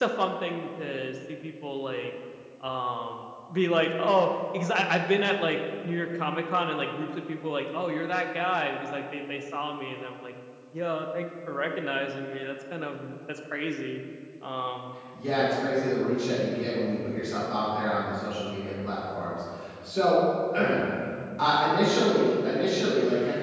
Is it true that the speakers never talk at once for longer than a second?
Yes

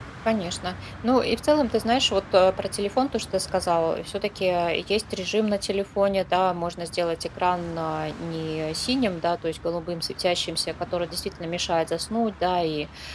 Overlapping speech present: No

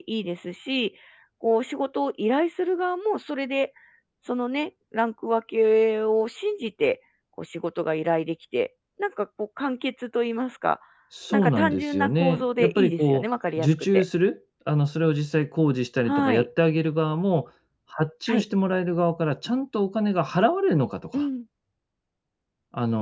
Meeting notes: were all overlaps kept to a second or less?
No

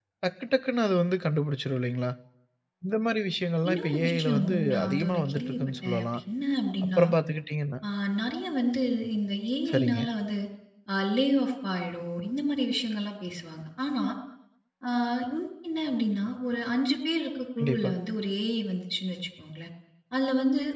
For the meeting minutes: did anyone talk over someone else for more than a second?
Yes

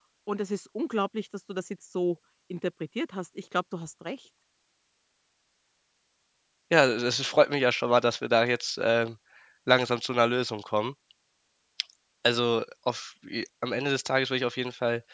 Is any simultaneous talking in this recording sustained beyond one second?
No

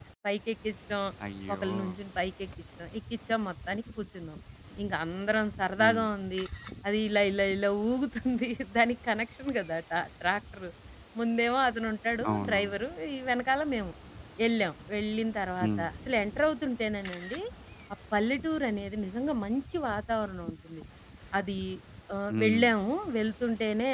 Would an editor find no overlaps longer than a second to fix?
Yes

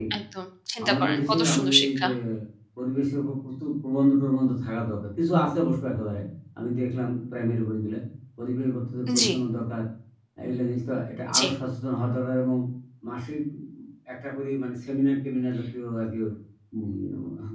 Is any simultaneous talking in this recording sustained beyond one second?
Yes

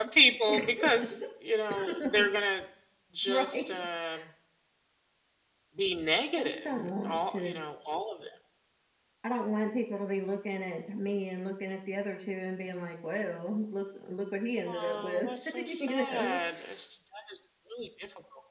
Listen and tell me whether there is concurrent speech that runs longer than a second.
Yes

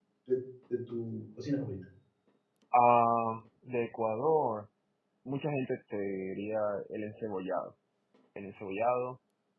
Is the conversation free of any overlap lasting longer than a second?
Yes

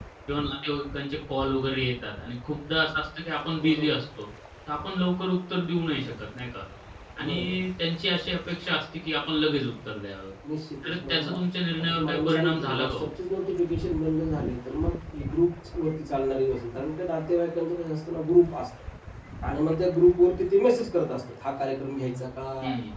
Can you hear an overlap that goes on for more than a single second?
Yes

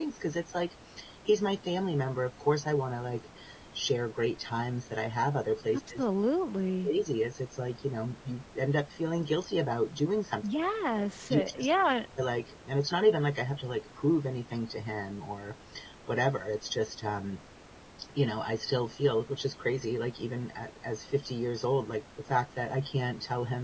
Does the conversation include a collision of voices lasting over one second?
No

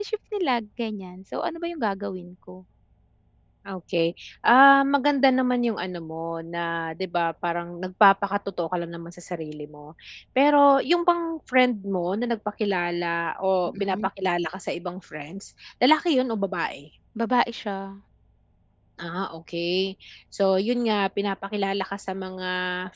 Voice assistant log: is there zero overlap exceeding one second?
Yes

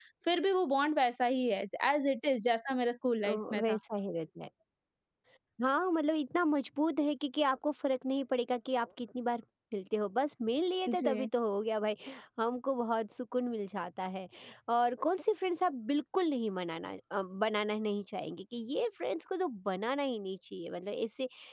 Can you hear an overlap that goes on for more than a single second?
No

